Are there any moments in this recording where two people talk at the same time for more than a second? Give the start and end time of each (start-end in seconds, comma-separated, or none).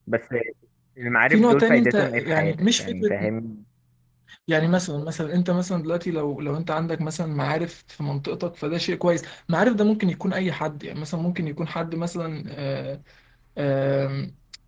1.3-3.2